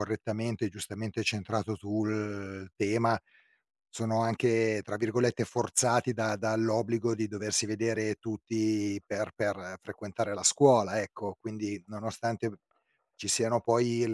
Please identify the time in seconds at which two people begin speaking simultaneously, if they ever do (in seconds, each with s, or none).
none